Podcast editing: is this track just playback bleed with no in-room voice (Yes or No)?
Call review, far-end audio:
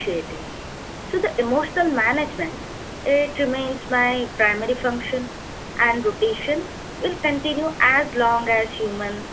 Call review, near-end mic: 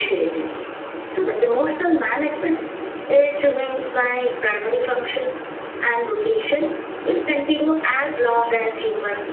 Yes